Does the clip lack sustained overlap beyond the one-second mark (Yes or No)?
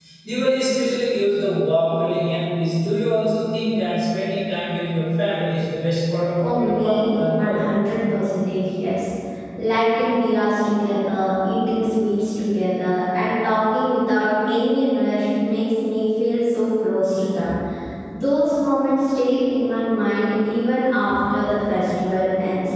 No